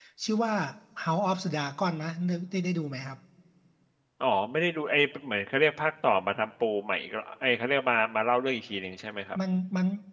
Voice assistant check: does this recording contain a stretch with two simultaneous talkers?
No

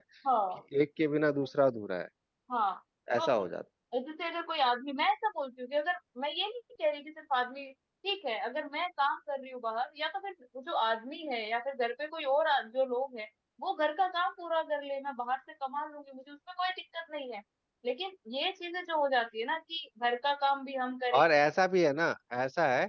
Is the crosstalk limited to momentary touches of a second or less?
Yes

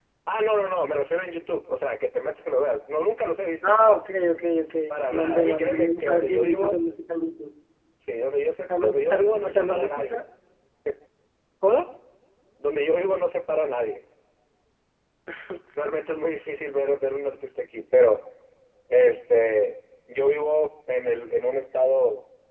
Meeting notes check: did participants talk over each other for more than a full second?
Yes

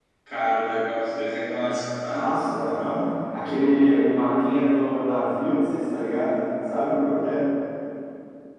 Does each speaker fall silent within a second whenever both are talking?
Yes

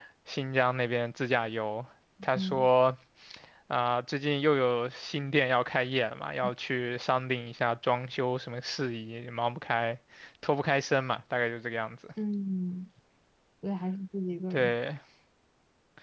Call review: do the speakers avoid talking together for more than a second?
Yes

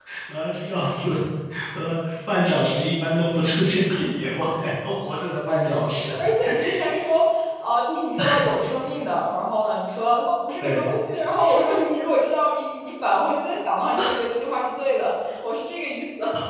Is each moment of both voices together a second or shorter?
Yes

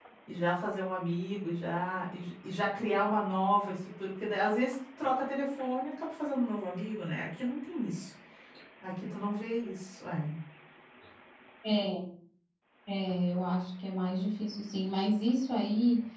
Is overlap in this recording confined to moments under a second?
Yes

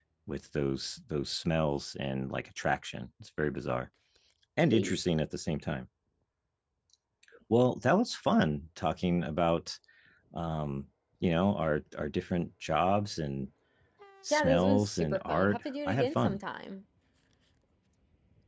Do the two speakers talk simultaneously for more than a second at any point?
Yes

